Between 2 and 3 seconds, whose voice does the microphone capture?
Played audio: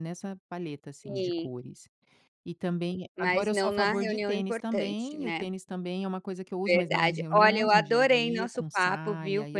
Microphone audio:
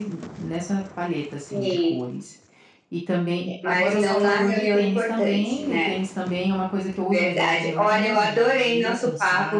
echo only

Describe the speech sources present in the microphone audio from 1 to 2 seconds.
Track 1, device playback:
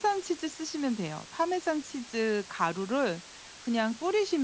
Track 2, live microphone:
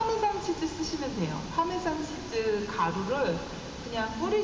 echo only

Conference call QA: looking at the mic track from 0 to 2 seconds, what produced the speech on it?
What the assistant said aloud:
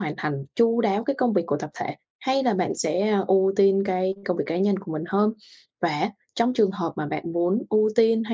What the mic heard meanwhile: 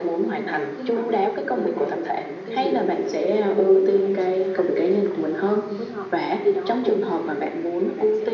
both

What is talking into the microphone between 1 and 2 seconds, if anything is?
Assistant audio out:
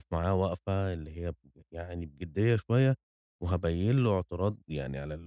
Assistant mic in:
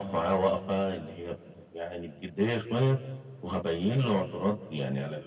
echo only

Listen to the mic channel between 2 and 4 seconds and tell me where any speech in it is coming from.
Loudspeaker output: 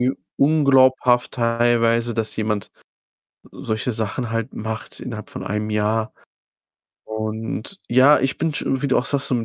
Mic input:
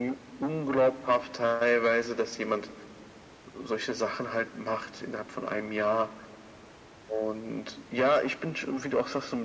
echo only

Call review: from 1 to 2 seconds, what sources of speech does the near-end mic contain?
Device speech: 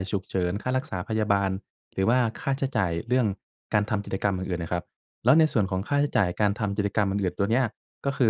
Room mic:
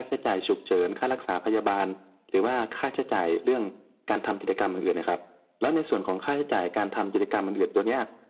echo only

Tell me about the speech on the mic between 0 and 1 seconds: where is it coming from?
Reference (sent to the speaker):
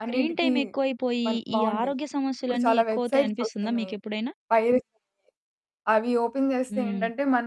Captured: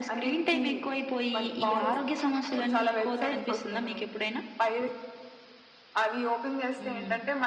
echo only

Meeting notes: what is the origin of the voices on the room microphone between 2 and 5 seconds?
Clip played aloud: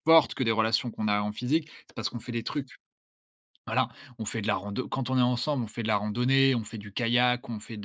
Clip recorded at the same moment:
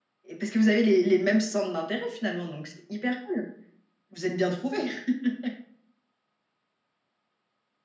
user only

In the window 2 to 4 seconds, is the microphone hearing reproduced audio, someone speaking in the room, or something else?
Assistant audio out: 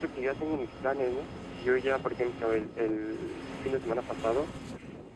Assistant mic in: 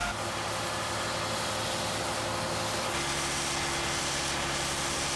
neither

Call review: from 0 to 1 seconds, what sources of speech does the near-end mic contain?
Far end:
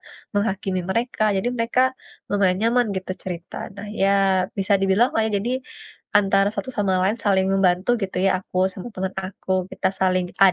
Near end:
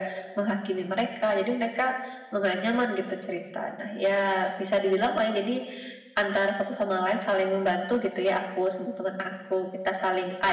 echo only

